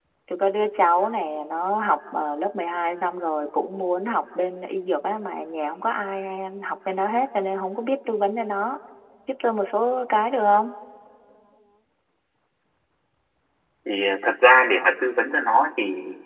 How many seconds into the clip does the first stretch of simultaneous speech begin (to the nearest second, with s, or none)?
none